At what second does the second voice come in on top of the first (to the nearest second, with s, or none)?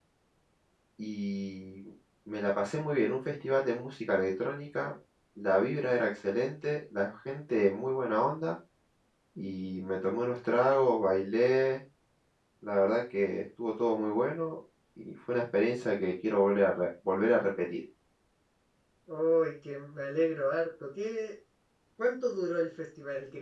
none